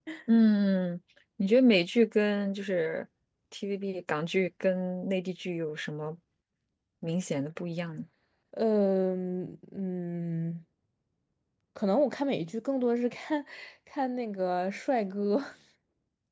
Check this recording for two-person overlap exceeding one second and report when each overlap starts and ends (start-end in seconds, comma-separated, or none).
none